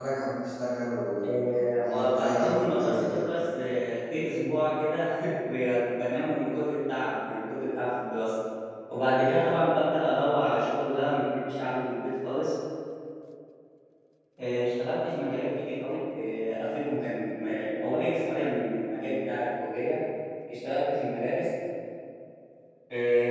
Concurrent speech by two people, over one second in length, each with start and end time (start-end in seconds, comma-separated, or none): 1.2-3.2